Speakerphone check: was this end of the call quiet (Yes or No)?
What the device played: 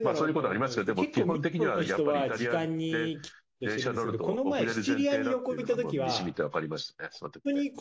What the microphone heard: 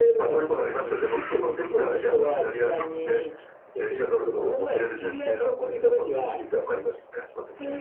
Yes